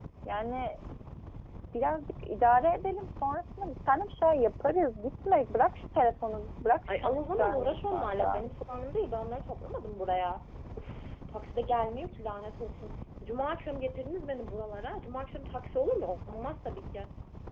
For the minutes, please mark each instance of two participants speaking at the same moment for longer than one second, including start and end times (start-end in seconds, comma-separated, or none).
6.9-8.4